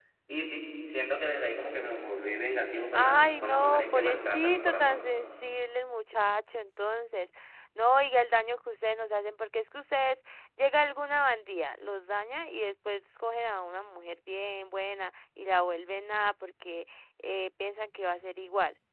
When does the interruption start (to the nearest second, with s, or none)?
3 s